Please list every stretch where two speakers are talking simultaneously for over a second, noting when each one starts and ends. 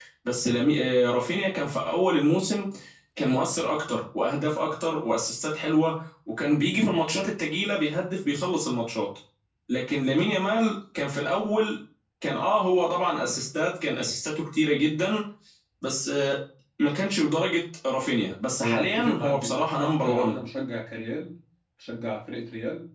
18.6-20.4

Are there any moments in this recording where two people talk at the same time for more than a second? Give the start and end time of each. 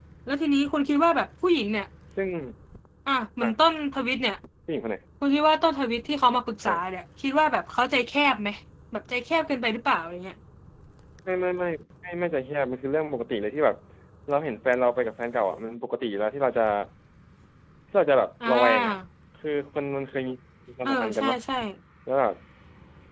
none

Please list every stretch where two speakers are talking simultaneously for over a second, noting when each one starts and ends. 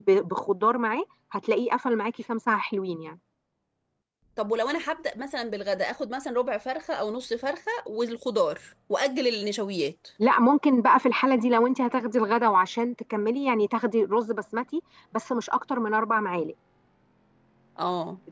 none

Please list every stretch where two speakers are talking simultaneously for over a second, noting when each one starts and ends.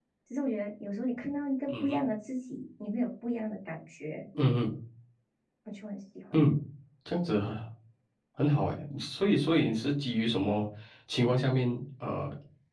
none

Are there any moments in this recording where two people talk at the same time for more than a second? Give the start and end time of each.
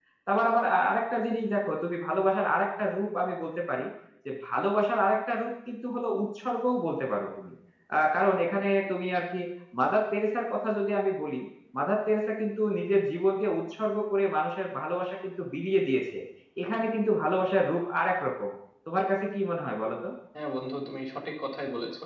none

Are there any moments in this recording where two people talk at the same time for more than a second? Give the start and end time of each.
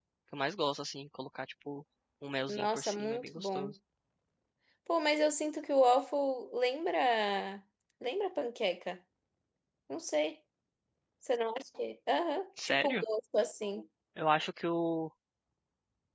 2.5-3.7

